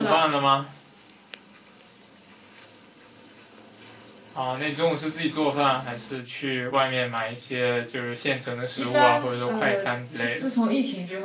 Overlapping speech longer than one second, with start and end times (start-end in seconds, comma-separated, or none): 8.8-10.5